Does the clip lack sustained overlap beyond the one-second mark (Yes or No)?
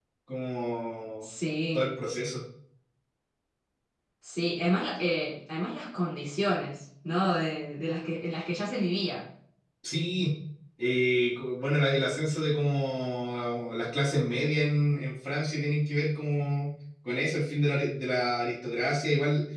Yes